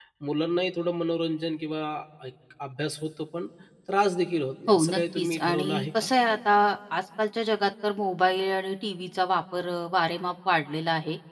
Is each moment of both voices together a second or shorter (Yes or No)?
No